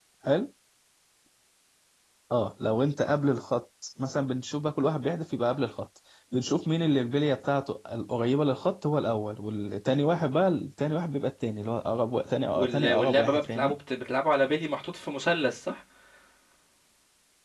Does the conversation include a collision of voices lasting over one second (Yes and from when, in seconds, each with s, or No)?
Yes, from 12.5 s